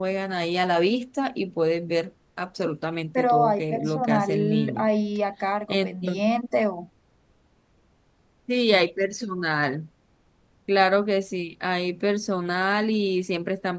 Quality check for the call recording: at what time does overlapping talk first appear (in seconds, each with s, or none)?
3.1 s